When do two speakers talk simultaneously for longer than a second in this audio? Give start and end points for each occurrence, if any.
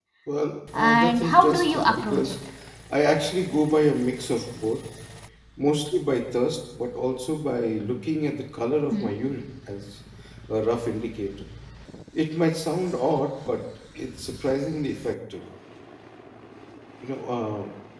0.7-2.3

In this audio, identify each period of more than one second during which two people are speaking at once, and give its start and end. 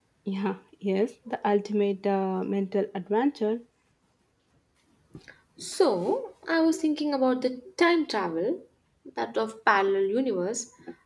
none

